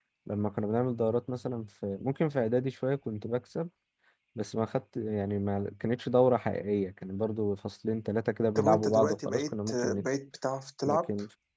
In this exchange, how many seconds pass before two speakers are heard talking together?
8.6 s

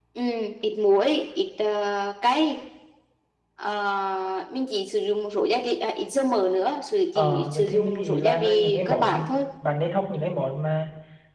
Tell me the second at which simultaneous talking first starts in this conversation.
7.2 s

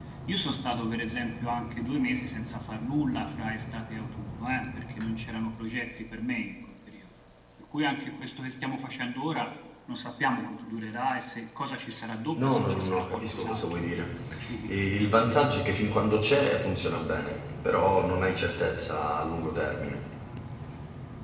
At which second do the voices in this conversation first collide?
12.3 s

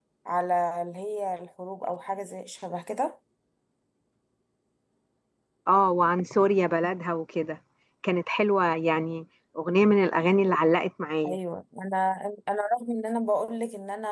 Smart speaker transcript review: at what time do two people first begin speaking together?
none

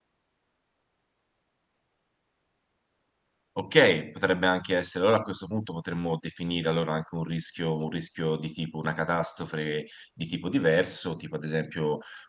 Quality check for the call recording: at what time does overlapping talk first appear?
none

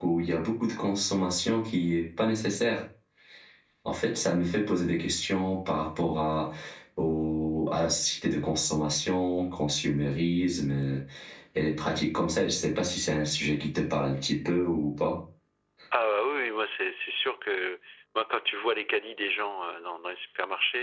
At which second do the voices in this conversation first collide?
none

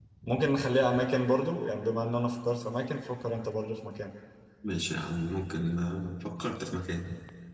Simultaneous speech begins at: none

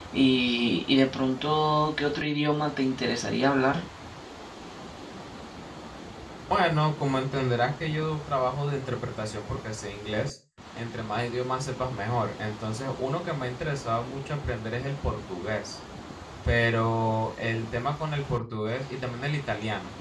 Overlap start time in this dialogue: none

